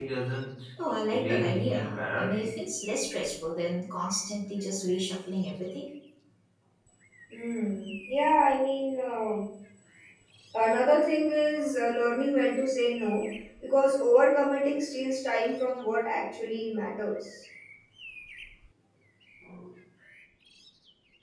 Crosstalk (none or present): present